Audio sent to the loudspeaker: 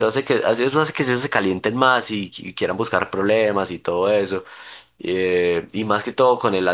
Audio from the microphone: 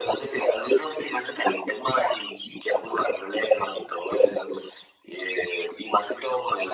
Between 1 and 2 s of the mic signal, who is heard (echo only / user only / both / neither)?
echo only